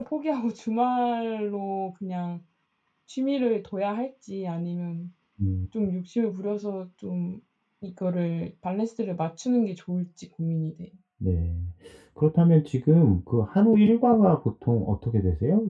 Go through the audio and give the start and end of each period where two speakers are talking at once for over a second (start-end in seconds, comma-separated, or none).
none